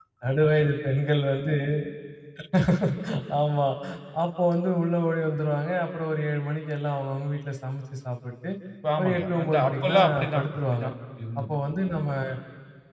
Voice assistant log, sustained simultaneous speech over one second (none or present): present